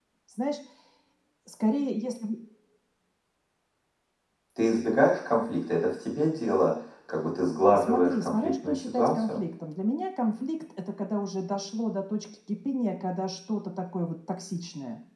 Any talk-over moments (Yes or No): Yes